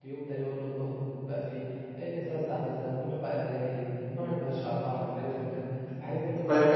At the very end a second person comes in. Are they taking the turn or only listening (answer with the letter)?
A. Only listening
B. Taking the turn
B